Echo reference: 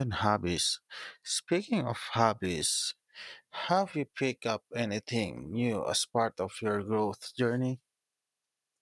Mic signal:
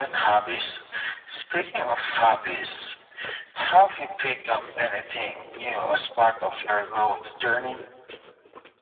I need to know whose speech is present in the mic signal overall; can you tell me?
echo only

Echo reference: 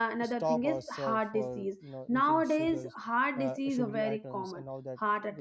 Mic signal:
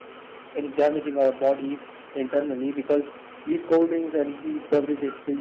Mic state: user only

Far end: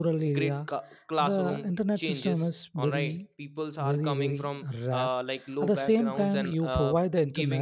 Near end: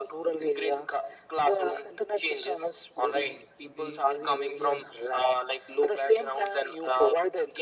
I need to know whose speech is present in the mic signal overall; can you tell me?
both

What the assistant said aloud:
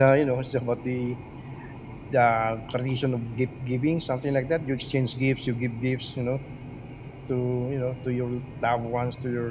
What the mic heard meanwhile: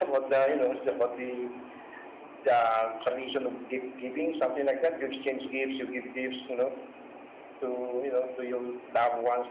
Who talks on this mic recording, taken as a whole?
echo only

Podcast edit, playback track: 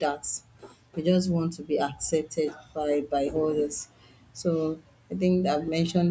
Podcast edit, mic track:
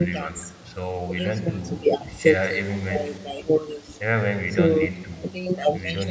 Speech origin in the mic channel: both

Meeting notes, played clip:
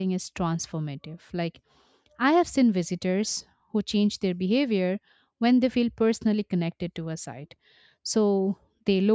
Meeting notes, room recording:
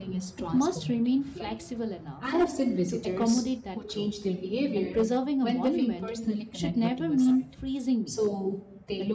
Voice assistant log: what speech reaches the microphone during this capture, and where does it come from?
both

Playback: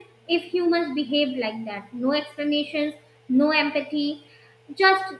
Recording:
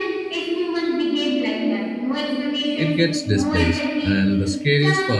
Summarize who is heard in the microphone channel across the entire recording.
both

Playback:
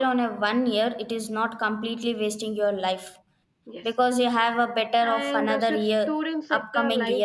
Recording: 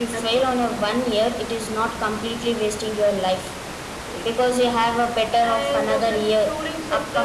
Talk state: echo only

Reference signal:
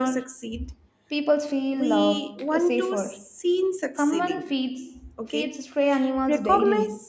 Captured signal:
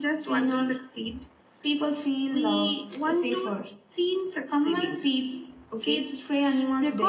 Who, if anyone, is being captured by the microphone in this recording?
echo only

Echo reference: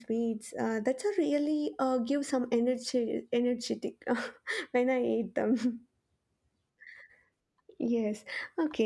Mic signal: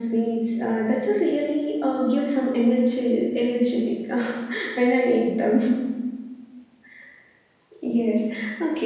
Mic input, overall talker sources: echo only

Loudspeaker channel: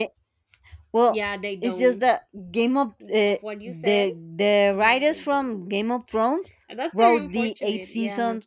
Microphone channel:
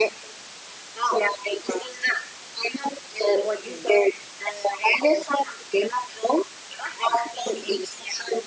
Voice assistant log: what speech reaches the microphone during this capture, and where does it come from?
echo only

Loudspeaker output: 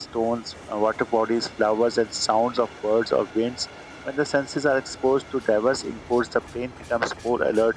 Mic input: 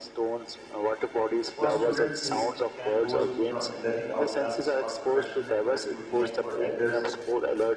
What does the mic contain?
both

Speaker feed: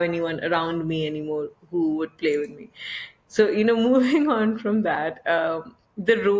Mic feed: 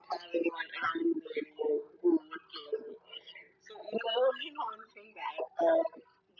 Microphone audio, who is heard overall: echo only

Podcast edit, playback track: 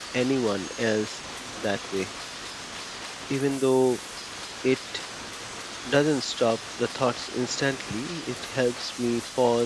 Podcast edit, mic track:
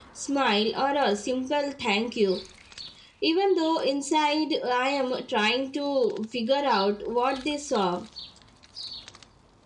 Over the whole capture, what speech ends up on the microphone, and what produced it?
user only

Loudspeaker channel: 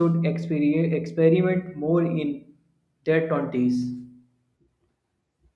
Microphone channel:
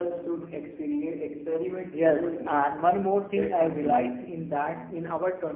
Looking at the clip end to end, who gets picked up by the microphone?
both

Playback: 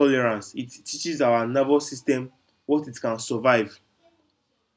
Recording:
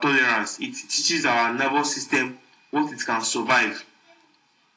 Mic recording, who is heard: echo only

